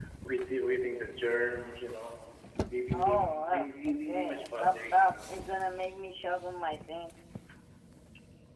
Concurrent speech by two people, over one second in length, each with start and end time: 2.9-5.2

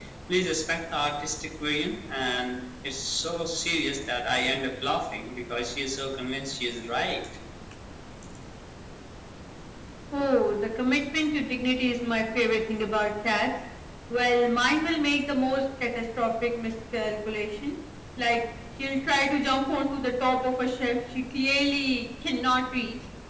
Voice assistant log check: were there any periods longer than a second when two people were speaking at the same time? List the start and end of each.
none

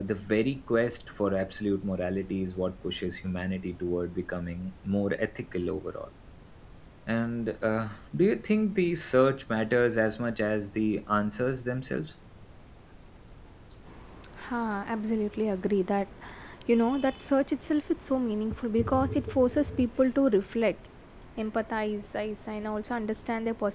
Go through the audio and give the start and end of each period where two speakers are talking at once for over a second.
none

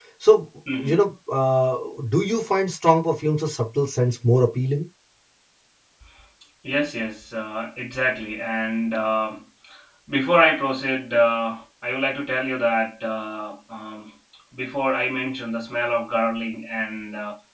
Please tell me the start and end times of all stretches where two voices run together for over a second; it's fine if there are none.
none

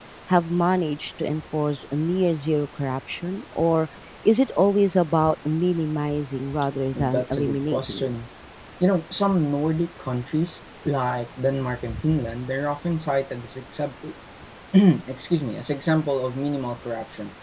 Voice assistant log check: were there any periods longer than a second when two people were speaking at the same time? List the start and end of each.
6.9-8.1

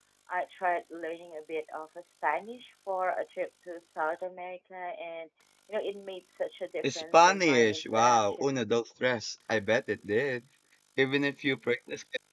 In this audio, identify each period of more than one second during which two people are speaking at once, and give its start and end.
6.9-8.7

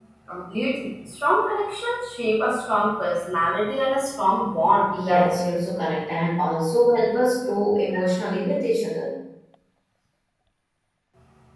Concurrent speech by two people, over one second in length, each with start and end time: none

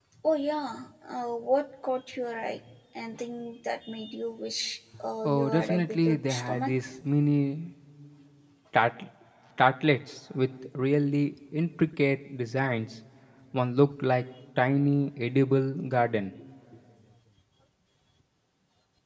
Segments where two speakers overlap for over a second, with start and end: 5.2-6.7

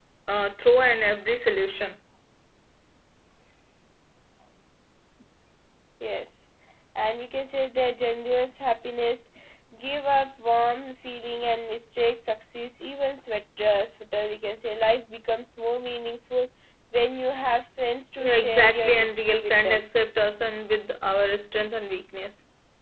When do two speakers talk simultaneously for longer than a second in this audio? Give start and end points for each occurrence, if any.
18.2-19.9

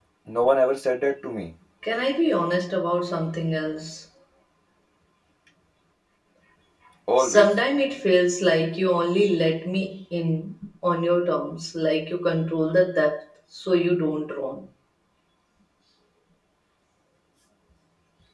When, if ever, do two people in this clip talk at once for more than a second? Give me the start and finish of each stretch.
none

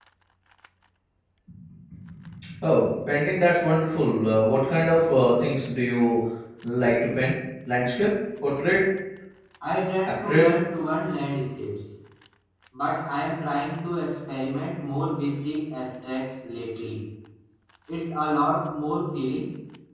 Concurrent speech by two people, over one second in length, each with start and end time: none

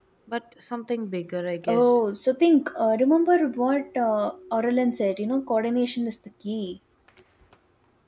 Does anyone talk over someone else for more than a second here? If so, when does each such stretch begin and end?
none

